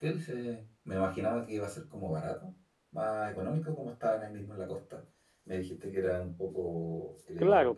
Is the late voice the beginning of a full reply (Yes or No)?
Yes